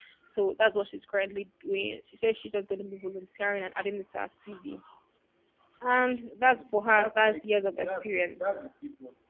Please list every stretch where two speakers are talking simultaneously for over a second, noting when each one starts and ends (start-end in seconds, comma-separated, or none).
6.5-8.6